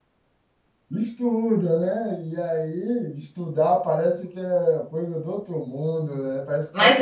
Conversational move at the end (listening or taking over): taking over